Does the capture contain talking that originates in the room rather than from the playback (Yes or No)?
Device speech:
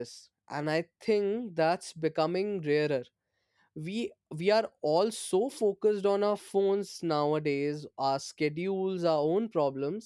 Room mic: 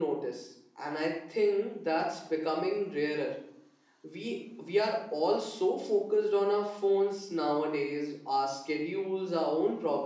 No